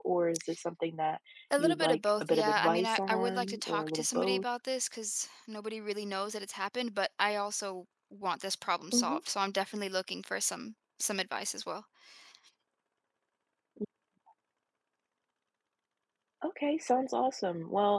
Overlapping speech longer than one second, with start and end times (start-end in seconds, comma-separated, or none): 1.6-4.4